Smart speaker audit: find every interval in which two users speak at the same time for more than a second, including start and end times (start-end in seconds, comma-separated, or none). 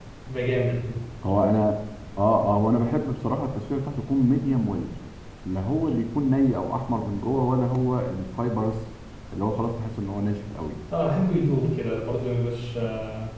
none